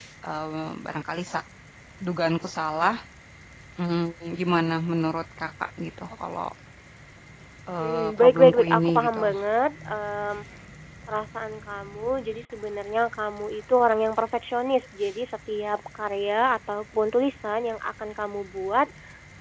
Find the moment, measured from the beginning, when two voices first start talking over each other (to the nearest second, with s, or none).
8 s